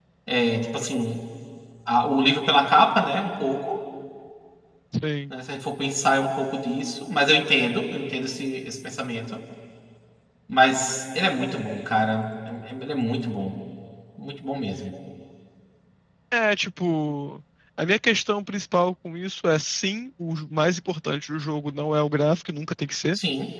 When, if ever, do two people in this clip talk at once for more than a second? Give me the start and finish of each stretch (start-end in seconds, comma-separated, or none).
none